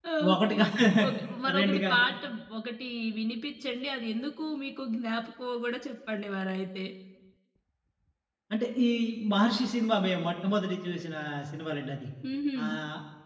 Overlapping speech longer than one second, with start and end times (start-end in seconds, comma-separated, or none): none